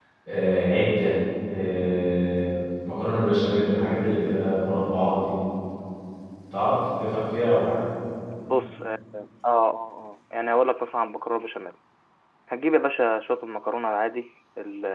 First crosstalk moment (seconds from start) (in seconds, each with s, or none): none